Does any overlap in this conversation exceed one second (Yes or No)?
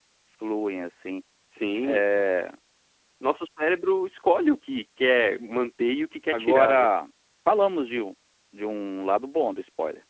No